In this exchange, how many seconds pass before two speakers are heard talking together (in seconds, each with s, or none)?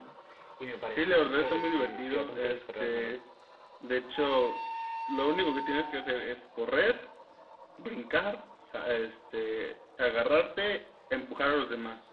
0.9 s